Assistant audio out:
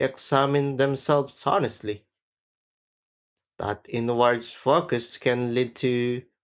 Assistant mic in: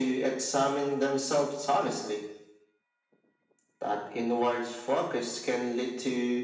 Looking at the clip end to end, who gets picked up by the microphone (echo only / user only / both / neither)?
echo only